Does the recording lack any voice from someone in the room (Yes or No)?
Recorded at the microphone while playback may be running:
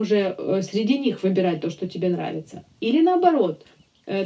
Yes